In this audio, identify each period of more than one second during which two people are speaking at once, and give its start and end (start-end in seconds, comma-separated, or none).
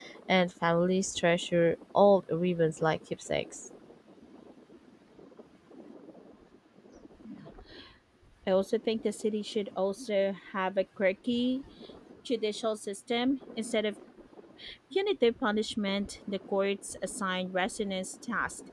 none